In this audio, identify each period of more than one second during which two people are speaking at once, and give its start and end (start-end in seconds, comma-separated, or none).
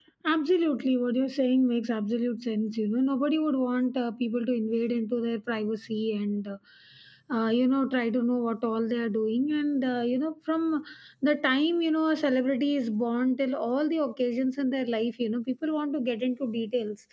none